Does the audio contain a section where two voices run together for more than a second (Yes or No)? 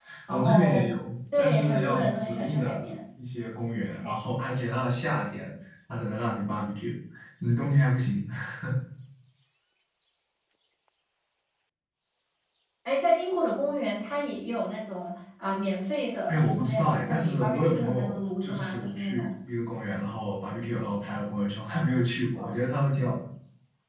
Yes